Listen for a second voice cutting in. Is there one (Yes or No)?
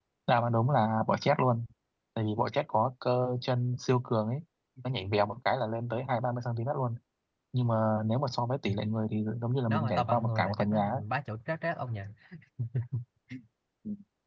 Yes